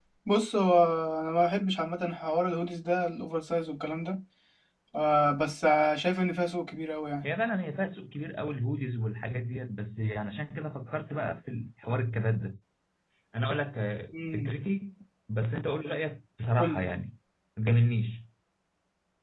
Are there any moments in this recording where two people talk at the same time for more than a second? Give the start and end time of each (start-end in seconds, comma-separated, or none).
none